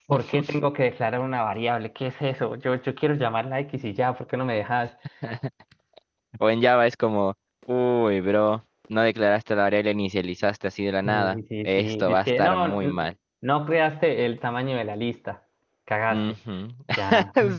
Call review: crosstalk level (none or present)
present